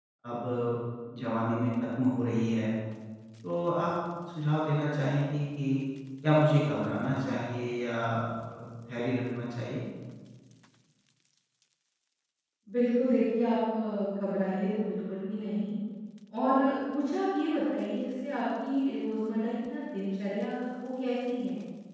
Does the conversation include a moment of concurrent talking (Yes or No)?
No